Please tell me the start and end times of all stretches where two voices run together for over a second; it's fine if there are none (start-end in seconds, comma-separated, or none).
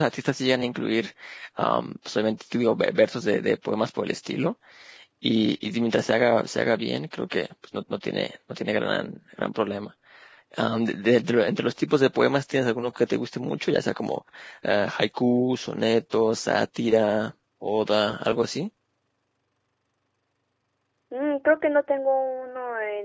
none